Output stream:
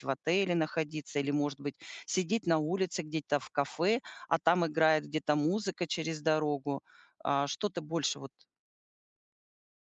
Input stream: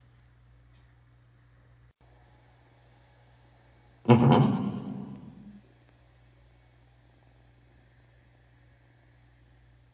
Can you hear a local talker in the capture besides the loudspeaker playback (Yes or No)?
Yes